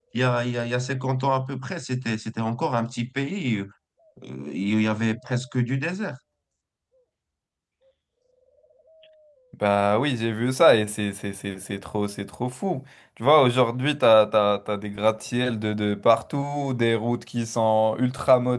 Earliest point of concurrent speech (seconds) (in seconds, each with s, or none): none